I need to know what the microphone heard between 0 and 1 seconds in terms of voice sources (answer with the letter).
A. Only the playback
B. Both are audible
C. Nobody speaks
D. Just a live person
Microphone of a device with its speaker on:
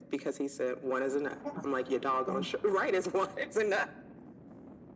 A